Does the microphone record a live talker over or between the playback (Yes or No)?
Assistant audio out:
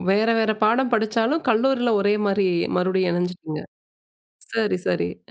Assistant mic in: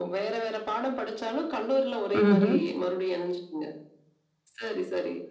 Yes